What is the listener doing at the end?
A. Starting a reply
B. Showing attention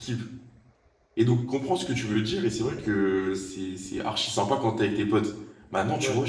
B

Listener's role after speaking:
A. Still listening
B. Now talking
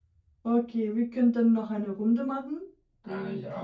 B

